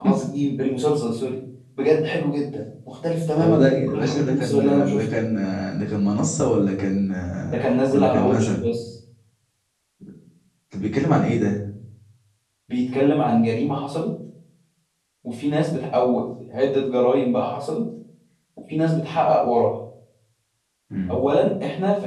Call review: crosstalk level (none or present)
present